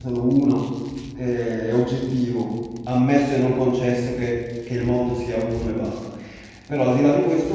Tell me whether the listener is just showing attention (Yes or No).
Yes